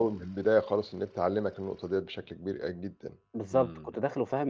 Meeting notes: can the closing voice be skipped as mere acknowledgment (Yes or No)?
No